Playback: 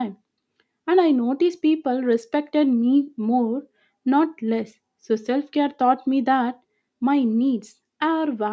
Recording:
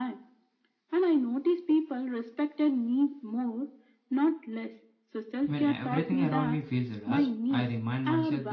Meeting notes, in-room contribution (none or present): present